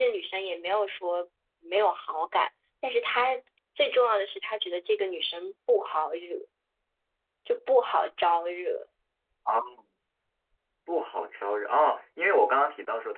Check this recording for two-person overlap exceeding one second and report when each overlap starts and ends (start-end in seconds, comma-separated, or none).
none